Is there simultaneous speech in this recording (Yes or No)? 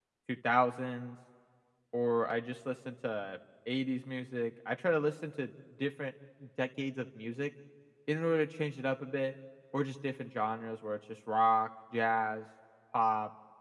No